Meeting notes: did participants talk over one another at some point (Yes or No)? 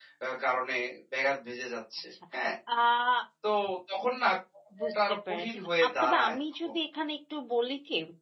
Yes